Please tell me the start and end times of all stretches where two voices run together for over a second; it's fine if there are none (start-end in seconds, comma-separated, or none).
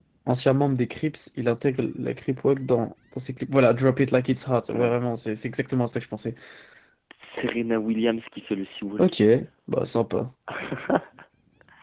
none